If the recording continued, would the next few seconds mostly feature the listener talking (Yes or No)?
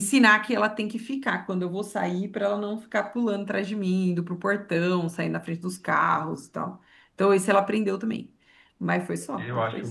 Yes